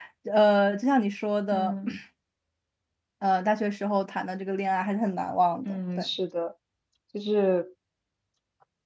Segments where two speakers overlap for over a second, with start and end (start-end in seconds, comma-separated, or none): none